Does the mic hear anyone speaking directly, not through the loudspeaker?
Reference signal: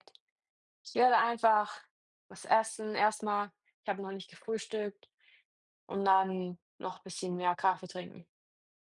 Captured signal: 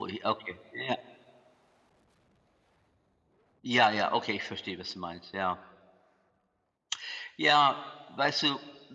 Yes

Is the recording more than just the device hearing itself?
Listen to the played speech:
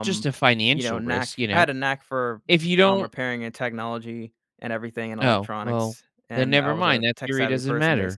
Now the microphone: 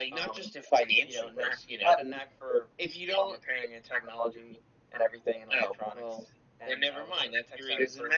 No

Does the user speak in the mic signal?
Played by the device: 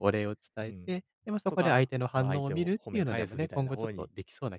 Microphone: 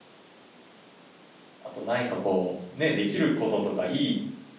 Yes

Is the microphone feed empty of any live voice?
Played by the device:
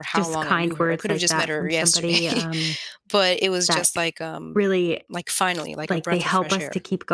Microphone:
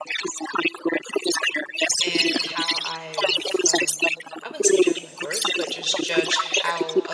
No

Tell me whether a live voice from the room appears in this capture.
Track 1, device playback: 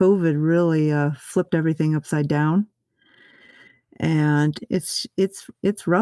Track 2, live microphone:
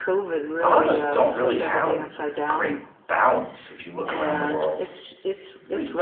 Yes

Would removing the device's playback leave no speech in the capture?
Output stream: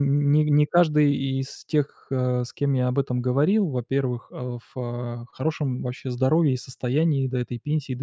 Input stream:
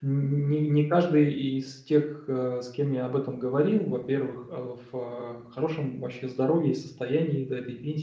Yes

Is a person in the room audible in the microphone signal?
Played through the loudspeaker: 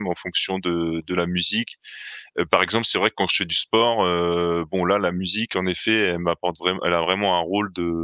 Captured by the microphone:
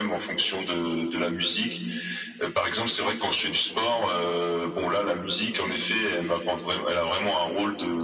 No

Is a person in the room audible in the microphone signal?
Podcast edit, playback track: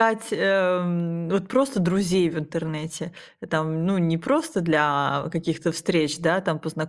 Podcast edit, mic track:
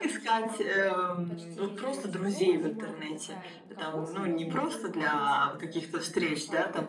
Yes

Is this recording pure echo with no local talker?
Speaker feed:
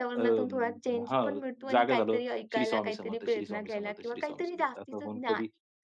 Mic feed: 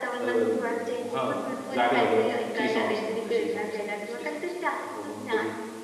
No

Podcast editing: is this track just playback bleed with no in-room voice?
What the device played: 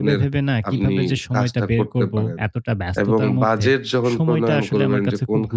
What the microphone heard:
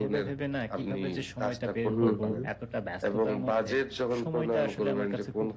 No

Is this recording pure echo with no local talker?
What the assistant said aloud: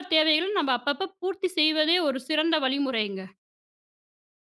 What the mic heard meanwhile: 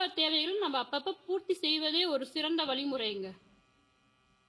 Yes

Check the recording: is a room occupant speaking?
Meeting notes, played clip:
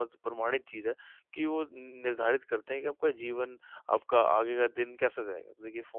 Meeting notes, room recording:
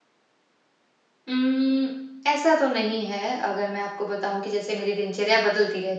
Yes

